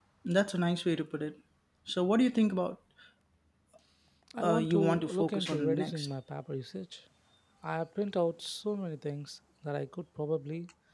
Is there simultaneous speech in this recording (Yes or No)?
Yes